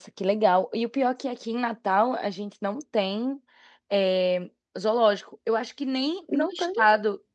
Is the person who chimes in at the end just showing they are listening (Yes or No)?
Yes